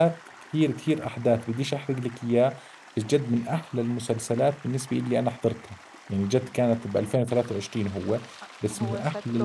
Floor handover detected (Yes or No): Yes